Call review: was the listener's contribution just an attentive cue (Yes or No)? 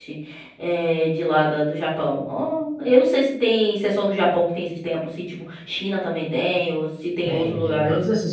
No